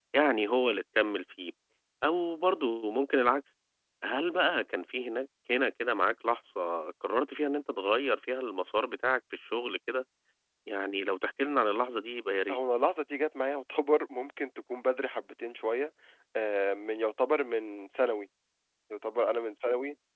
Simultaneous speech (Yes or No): No